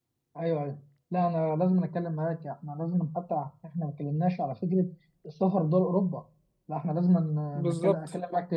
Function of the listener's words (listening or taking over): listening